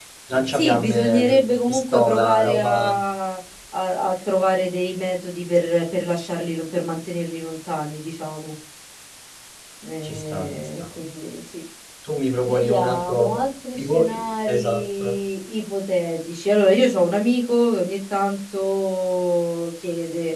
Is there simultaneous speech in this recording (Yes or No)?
Yes